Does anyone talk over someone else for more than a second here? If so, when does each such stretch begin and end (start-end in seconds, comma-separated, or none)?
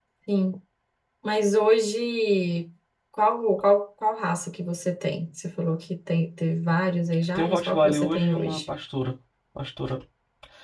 7.3-8.6